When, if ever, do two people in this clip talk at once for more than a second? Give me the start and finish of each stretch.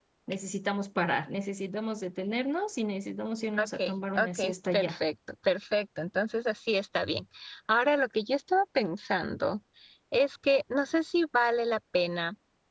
3.6-5.0

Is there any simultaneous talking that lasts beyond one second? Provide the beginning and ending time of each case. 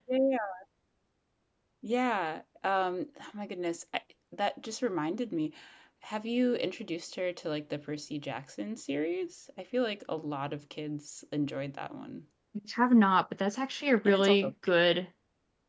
none

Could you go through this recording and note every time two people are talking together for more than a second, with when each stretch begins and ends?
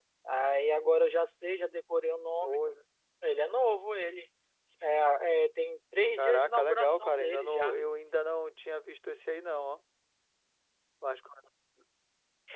6.2-7.8

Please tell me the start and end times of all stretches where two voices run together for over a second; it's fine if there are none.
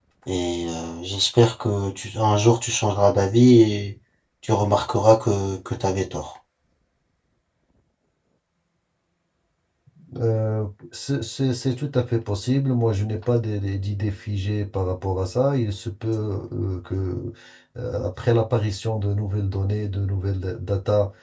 none

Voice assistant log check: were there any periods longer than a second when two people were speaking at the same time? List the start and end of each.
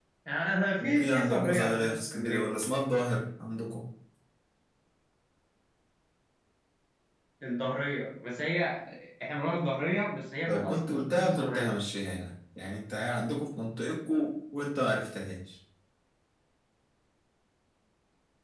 0.8-2.5, 10.5-11.7

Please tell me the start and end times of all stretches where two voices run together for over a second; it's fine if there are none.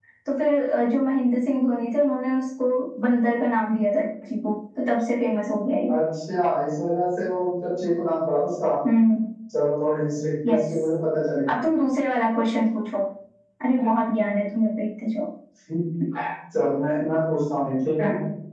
none

